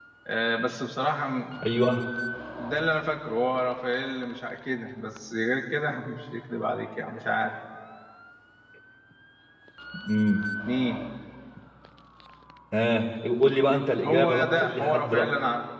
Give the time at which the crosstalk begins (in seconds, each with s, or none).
14.0 s